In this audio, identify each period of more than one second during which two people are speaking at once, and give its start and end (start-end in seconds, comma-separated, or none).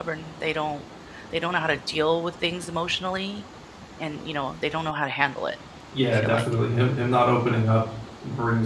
none